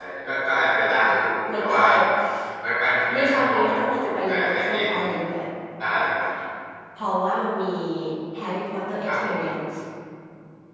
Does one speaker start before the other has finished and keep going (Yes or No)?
Yes